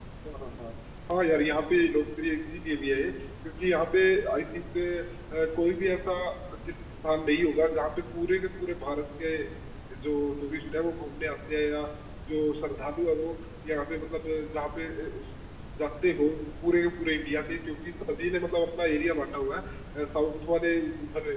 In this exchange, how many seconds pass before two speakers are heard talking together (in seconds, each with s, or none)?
none